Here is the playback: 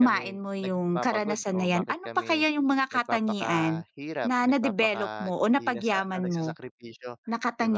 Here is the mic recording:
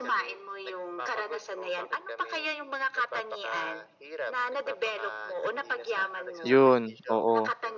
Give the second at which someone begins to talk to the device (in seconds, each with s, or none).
6.4 s